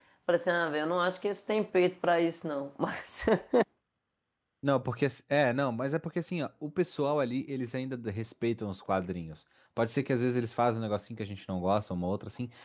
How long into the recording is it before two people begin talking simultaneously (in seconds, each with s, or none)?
none